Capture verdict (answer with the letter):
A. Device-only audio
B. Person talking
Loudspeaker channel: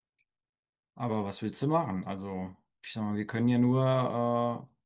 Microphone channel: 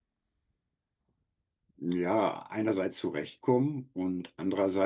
B